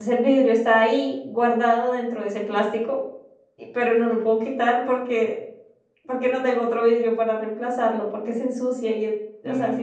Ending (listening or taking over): taking over